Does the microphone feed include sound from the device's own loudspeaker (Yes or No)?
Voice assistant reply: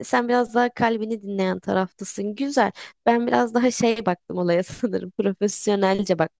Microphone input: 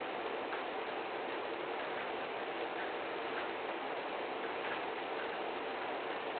No